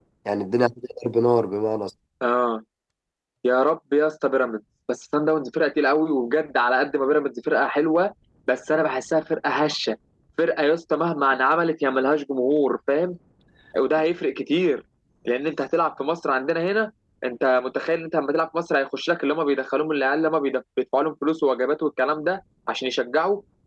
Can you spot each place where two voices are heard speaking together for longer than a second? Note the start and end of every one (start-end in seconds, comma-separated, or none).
none